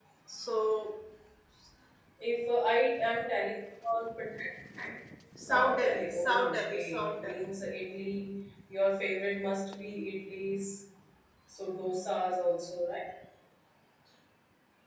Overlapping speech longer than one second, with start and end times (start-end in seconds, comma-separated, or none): 5.5-7.3